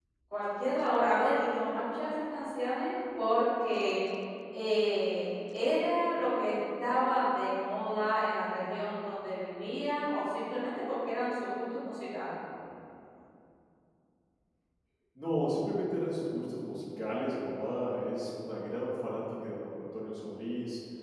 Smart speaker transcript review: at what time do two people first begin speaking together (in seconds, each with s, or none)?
none